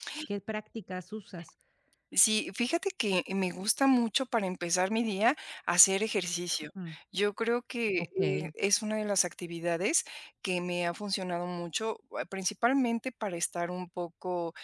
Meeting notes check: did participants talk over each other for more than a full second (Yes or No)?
No